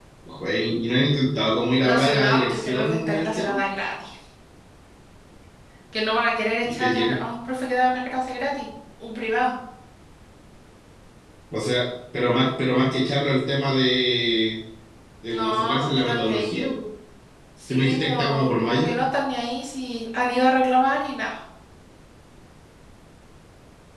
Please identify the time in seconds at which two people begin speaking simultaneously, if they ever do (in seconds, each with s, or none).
1.8 s